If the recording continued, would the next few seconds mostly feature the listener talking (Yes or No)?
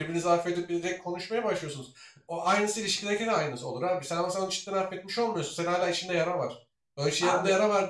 No